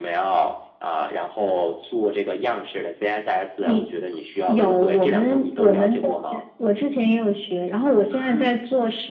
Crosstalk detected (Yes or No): Yes